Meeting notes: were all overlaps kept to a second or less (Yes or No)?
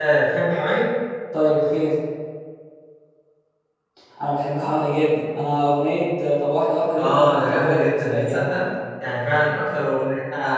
No